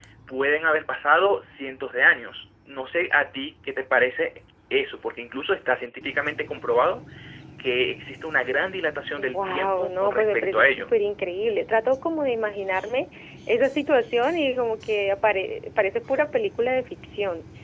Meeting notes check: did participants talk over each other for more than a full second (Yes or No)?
Yes